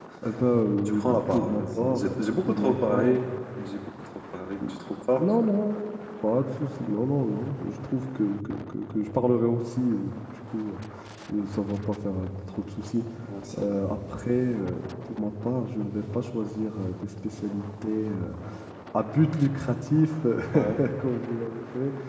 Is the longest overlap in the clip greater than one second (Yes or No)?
Yes